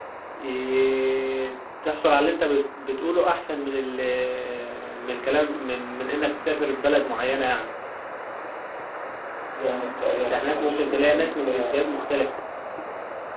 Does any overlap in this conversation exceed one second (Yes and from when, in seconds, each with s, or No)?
Yes, from 10.2 s